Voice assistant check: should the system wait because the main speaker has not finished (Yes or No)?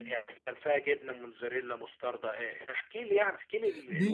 No